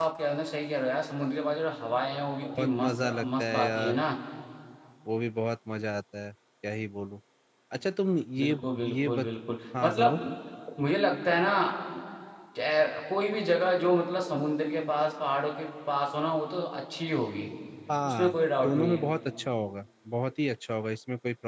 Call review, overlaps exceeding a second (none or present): present